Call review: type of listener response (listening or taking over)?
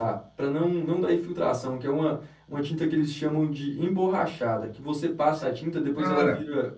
listening